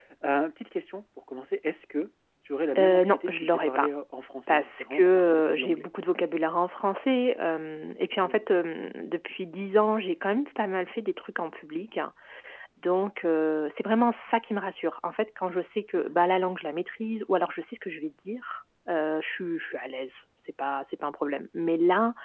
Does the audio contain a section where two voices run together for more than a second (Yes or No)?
Yes